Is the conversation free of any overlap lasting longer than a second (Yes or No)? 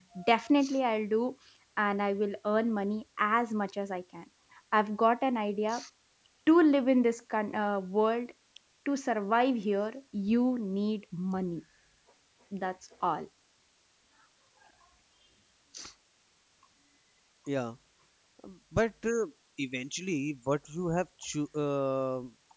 Yes